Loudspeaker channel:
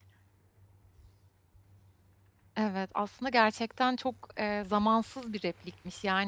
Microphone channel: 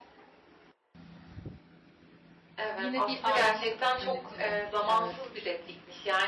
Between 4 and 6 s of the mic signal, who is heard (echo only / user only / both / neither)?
both